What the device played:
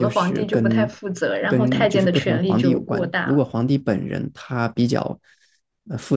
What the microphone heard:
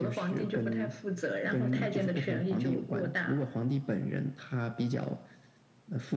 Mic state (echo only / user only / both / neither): echo only